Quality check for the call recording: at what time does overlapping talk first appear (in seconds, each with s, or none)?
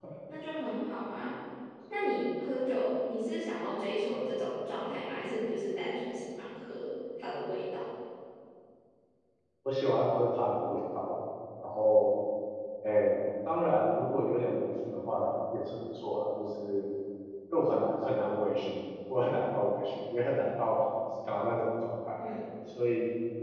none